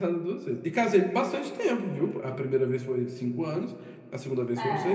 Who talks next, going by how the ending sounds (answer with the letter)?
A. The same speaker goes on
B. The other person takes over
A